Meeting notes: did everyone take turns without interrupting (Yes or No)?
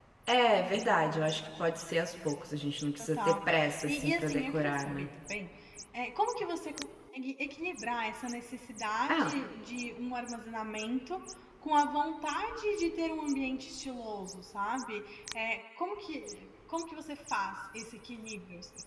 No